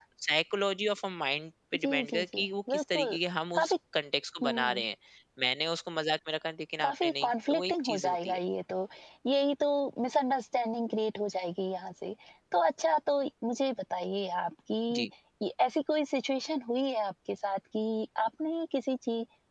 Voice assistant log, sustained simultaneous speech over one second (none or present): present